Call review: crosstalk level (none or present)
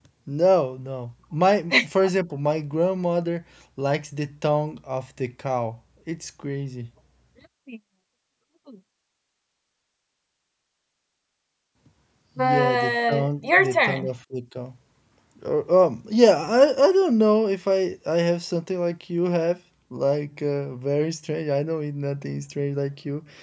present